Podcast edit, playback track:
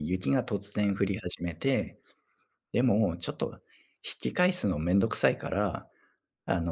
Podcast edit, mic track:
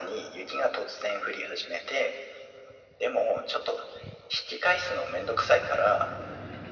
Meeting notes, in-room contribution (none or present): none